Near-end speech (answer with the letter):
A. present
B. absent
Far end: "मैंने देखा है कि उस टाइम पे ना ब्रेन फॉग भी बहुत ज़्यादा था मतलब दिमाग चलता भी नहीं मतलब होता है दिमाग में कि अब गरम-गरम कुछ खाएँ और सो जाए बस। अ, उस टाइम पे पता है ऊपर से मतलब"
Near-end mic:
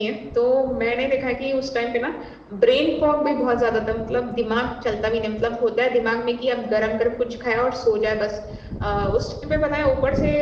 B